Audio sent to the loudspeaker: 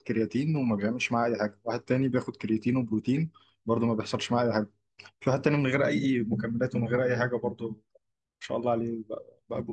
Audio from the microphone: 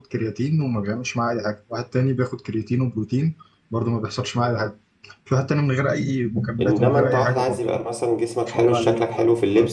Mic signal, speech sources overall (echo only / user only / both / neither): both